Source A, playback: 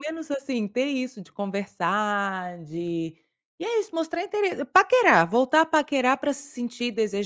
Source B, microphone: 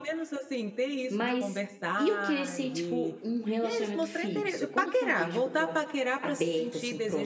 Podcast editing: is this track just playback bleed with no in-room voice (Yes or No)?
No